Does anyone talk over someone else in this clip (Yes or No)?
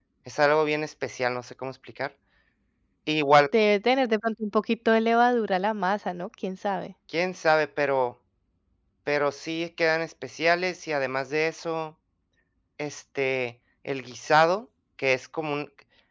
No